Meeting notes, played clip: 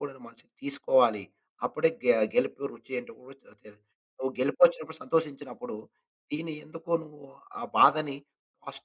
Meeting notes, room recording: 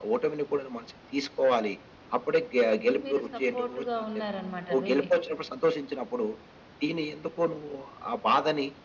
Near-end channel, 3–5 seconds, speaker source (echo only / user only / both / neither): both